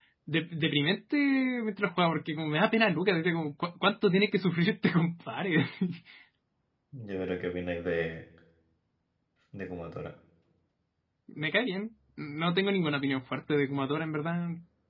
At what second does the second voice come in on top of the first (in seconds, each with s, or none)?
none